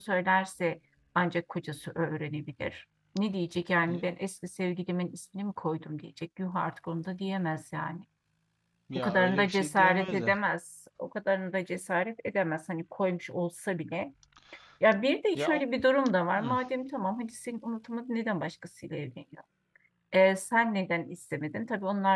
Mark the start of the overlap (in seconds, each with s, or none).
9.0 s